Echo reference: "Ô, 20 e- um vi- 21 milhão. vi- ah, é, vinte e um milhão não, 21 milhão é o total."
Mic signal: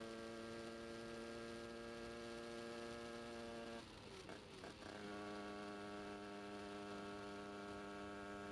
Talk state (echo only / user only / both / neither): neither